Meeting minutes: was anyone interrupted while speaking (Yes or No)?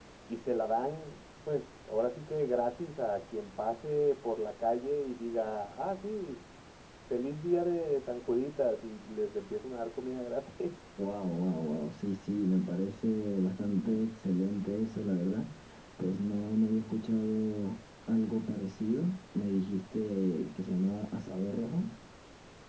No